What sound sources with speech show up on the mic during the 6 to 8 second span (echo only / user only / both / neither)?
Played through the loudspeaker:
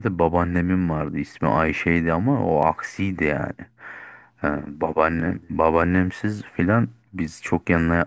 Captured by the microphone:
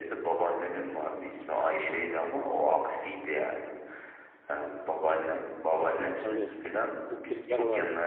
both